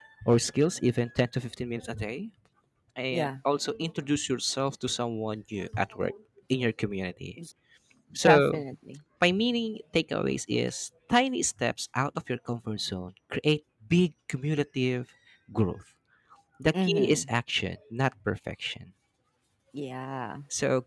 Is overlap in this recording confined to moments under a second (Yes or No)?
Yes